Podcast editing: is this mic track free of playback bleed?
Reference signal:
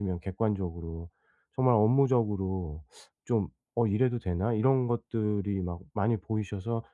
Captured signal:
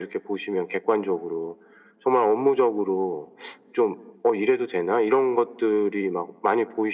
No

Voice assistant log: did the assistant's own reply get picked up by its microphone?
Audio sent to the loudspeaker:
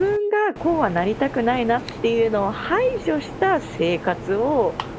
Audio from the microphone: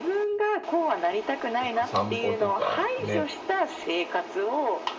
Yes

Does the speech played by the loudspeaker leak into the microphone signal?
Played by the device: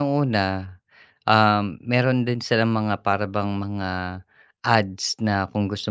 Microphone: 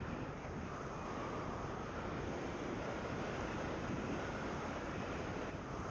No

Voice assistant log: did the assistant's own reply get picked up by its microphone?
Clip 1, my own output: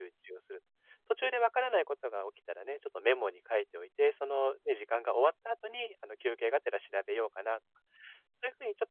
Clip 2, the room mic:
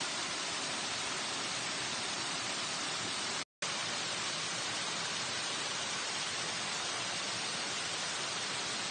No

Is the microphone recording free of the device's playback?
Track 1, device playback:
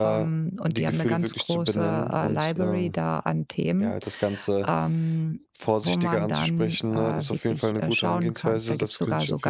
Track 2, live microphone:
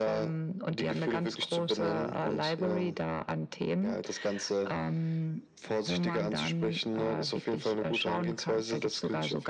No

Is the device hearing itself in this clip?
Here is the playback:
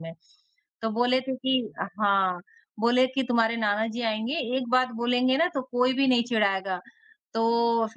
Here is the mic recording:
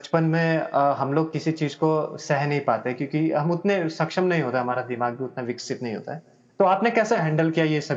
No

